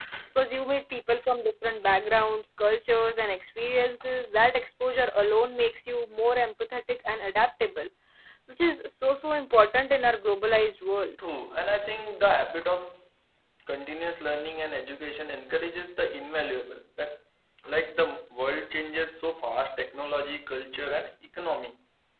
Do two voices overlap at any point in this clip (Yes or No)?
No